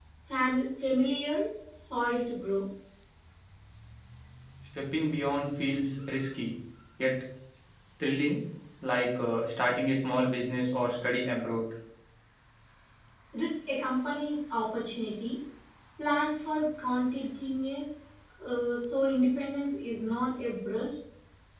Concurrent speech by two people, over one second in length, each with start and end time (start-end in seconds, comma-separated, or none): none